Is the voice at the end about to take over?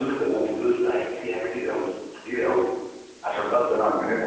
Yes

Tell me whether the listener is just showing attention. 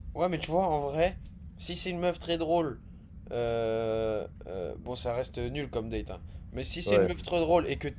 Yes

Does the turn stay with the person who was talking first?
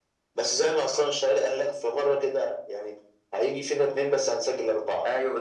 No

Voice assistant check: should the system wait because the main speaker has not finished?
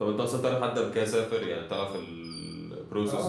No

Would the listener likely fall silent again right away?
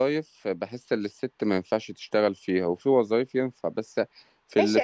No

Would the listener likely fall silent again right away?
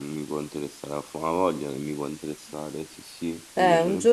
No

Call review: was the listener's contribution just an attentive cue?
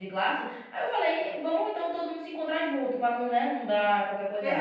No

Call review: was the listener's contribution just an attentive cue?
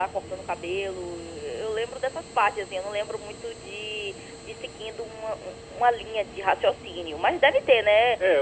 No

